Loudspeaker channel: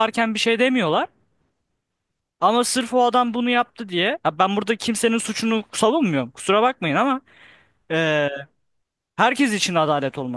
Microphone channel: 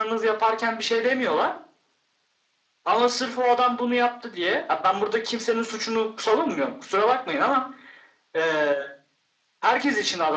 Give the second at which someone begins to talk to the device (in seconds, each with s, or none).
none